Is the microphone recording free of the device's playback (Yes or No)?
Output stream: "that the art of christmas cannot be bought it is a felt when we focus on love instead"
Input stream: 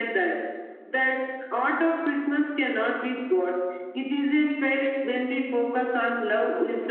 No